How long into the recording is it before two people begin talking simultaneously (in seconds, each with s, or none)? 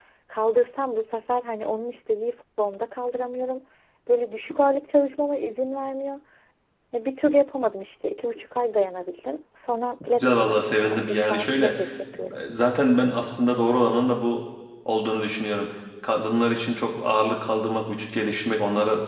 10.2 s